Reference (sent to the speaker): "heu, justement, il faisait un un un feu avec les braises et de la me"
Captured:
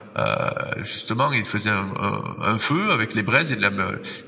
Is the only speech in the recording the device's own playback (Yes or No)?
Yes